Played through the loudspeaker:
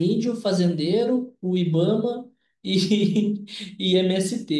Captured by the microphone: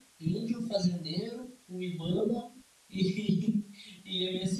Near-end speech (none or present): none